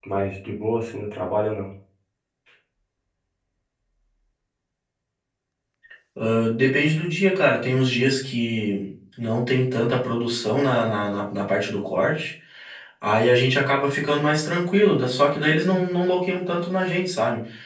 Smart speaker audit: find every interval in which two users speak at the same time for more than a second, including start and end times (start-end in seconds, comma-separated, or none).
none